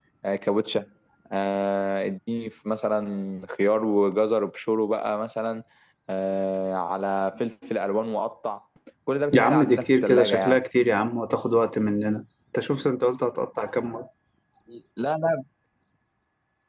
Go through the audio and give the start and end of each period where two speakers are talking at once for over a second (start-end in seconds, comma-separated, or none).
9.3-10.6